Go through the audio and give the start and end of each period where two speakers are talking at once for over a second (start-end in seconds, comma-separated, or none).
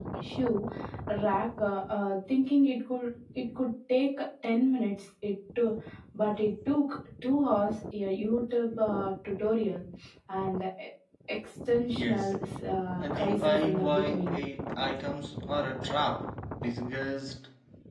13.0-14.4